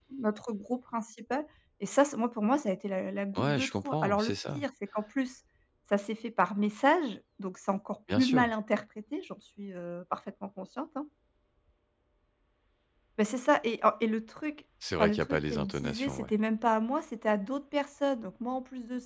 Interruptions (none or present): present